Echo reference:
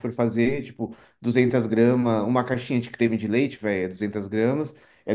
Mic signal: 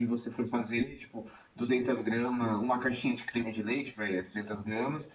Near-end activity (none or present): none